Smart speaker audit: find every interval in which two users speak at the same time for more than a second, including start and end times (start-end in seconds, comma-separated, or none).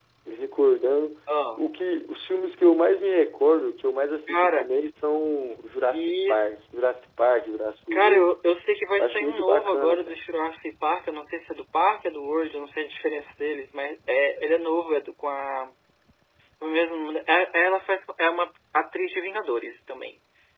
9.0-10.2